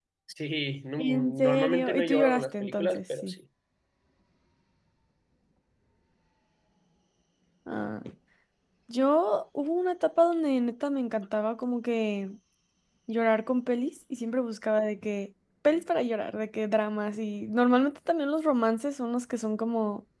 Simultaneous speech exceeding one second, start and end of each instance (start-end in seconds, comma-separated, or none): 1.0-3.3